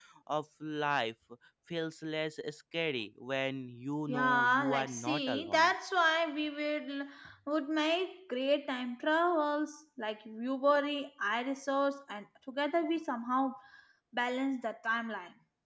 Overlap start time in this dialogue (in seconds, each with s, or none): 4.1 s